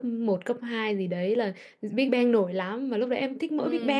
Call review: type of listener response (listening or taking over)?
listening